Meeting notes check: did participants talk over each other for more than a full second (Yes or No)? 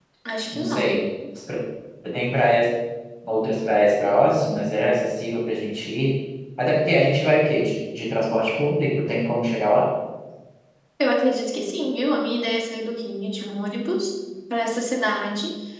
No